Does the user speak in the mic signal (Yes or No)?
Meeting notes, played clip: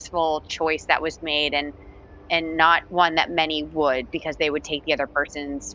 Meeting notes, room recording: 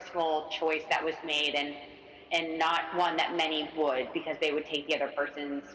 No